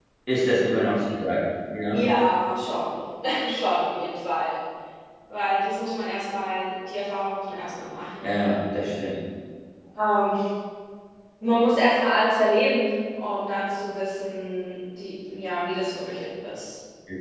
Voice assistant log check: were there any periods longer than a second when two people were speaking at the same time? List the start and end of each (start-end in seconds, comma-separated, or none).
none